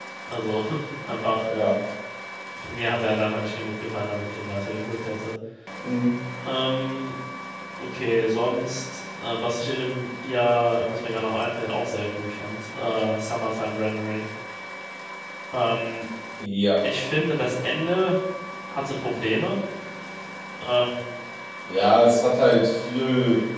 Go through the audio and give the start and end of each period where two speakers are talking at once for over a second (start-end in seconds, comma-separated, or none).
none